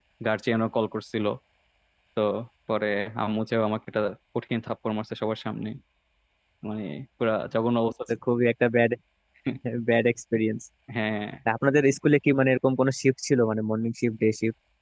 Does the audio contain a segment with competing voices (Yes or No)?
No